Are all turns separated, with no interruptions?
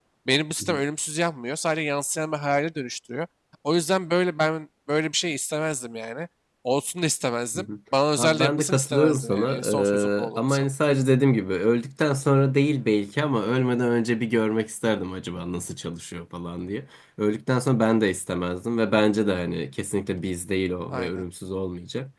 No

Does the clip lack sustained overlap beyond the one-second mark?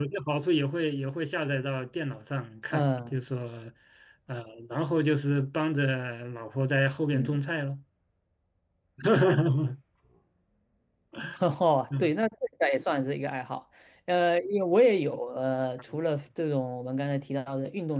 Yes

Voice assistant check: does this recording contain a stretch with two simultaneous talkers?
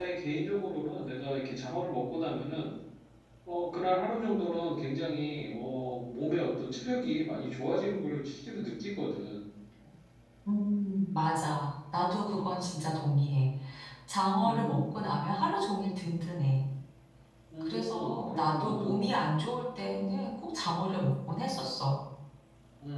Yes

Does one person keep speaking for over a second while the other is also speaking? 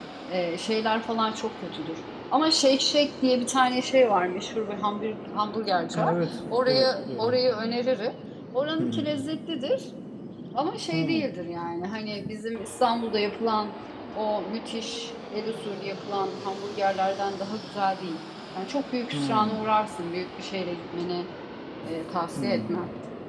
Yes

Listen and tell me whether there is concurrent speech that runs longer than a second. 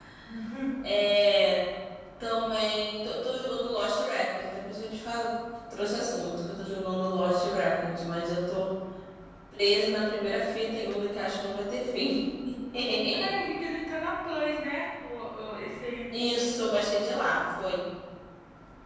No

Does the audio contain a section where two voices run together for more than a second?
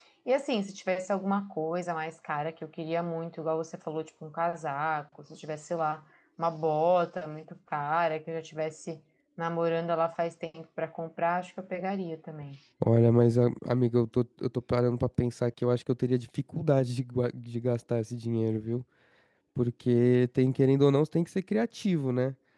No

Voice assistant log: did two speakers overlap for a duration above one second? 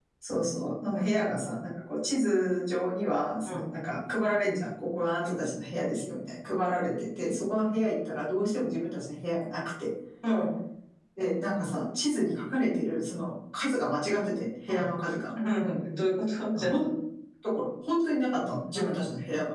No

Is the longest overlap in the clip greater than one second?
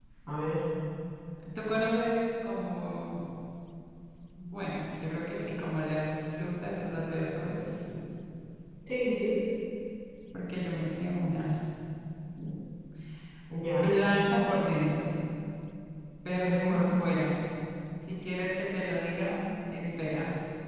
No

